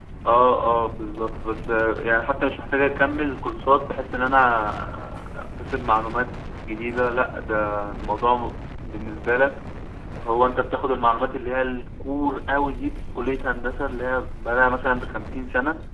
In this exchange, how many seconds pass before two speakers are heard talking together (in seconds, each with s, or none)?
none